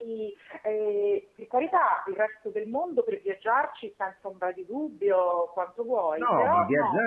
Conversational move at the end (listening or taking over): taking over